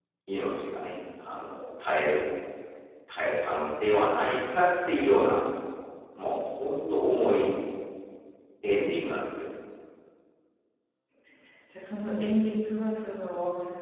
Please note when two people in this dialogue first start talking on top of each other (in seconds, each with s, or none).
none